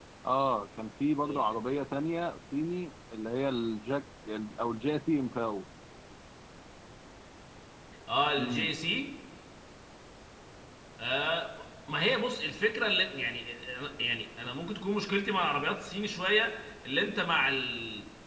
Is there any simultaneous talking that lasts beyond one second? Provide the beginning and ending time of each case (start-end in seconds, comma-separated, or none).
none